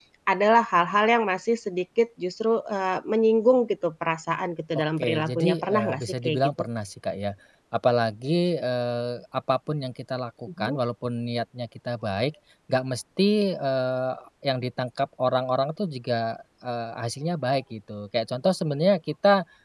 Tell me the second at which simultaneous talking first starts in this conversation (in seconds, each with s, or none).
4.7 s